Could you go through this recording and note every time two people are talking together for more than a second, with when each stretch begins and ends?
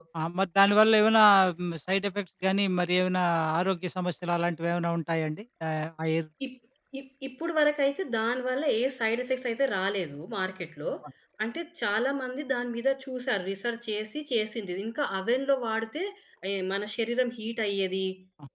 none

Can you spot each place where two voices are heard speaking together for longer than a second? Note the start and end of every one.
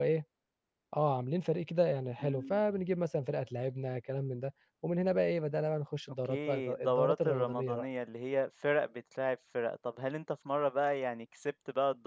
6.2-7.9

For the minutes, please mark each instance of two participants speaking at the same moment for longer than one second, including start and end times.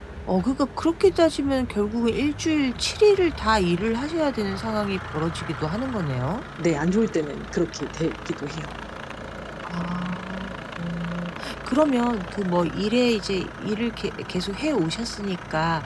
none

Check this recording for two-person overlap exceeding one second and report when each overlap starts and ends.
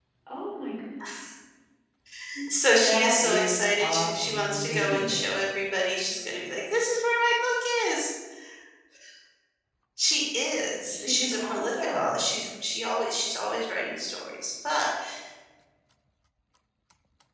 2.9-5.5, 10.8-12.2

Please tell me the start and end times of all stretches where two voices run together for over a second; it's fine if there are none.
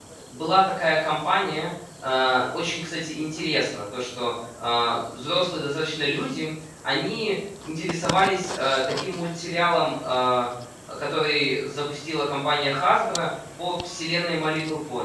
none

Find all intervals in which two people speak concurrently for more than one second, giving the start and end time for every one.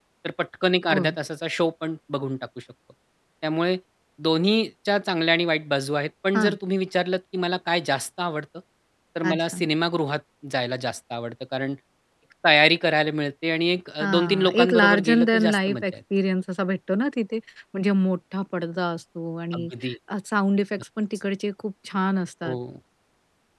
14.0-15.8

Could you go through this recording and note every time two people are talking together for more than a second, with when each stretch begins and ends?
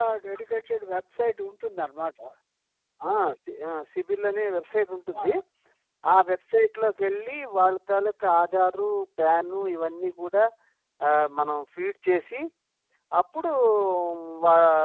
none

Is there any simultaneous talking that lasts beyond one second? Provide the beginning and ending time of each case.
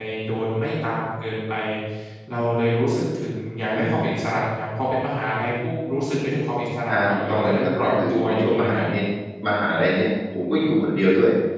6.9-8.8

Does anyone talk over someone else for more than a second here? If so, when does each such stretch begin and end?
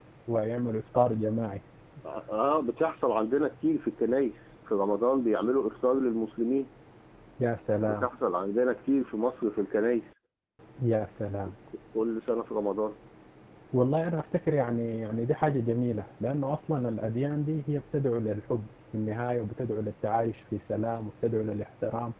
none

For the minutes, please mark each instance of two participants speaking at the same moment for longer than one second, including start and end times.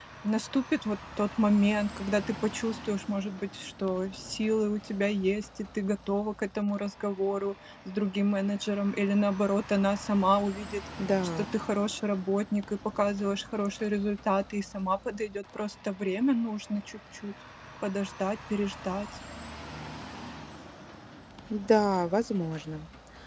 none

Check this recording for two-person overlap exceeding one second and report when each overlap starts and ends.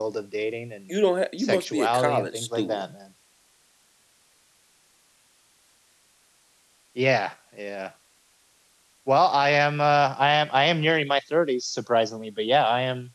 1.4-2.8

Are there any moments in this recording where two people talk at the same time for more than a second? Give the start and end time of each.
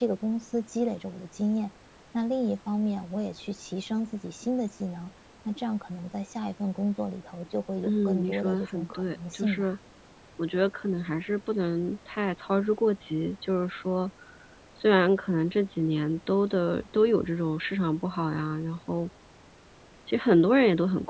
7.8-9.7

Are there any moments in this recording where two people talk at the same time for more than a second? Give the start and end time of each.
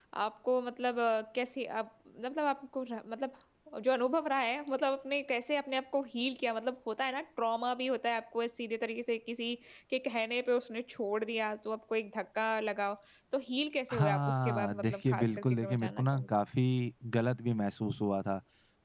13.9-16.3

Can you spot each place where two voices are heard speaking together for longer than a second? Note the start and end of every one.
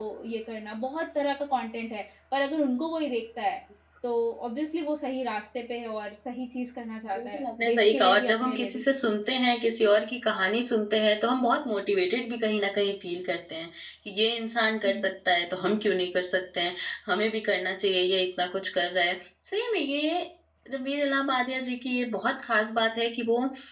7.1-8.8

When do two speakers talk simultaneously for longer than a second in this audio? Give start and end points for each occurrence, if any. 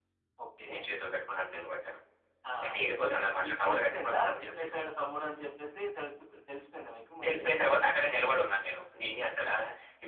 2.6-4.7

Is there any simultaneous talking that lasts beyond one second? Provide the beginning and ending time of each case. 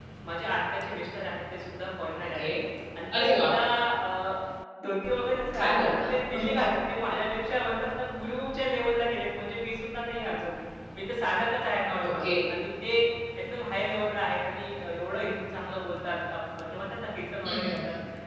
none

